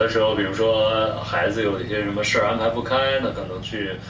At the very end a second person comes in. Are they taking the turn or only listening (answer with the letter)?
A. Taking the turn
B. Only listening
B